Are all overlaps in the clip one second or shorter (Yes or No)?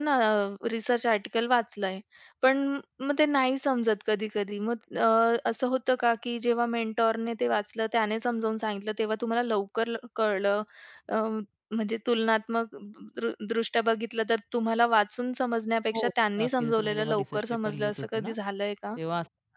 No